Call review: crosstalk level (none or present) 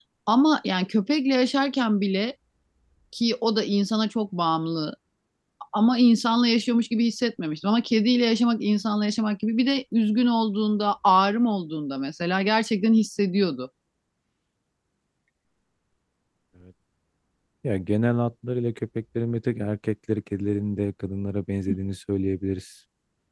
none